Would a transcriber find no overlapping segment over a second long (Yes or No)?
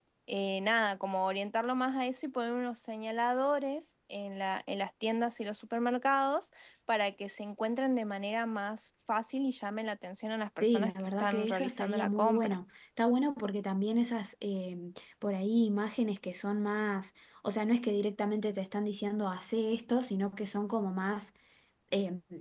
No